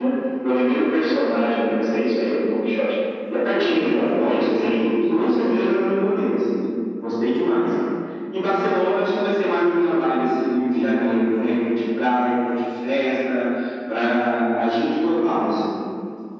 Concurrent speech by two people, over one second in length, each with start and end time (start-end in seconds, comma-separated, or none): 3.5-5.8